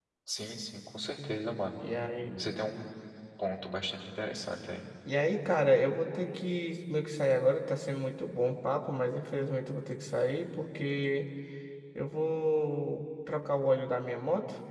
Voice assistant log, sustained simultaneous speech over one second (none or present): none